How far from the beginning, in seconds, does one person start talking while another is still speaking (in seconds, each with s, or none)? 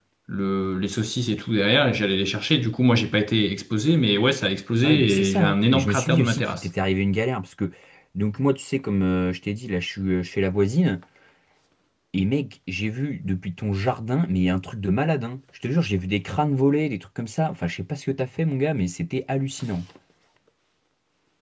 4.8 s